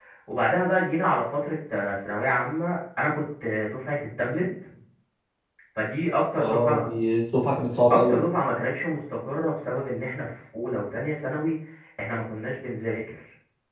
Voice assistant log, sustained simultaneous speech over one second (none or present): none